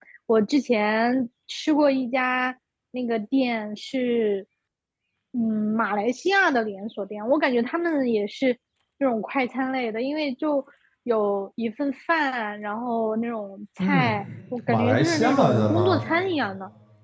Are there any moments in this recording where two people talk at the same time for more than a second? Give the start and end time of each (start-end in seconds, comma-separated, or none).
14.7-16.1